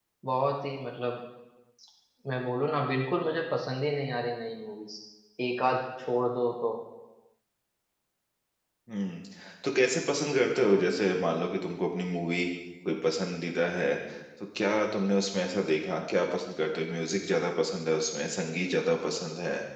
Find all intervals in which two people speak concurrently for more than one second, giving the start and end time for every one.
none

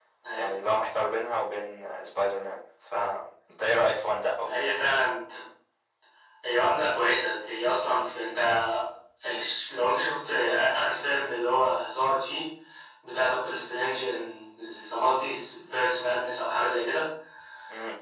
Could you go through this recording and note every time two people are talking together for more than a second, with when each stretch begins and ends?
none

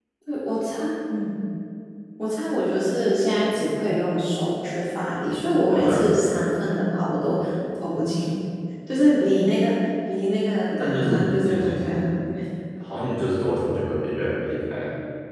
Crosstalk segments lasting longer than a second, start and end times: 10.8-12.1

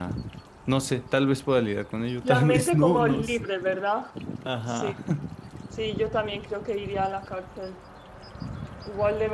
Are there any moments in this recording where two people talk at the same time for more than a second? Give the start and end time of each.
2.2-3.5

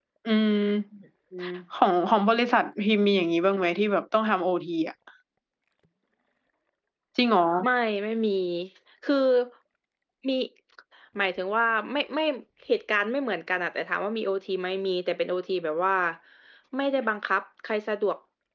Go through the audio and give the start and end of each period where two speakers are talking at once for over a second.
none

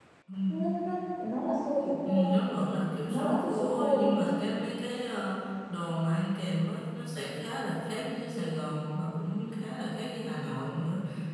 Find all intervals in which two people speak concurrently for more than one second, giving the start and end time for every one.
3.1-4.4

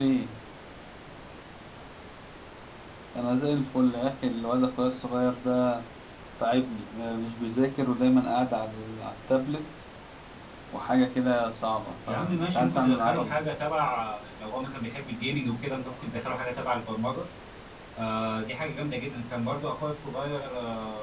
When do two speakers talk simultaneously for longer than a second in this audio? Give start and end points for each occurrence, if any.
12.1-13.4

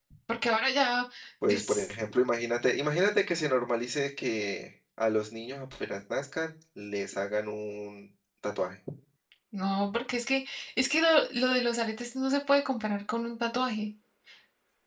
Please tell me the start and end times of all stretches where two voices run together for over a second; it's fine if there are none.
none

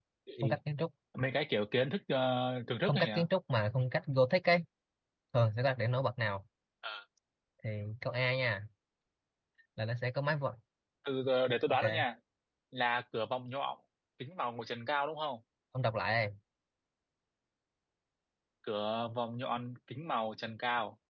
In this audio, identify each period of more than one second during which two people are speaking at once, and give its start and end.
none

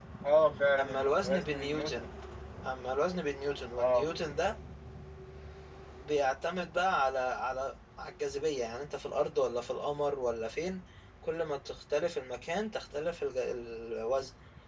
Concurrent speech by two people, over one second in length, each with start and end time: 0.8-2.0

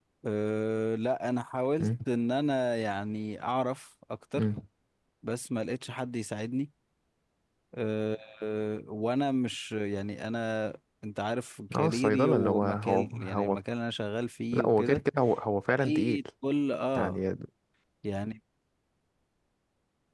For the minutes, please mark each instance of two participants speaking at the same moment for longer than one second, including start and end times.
11.8-13.6

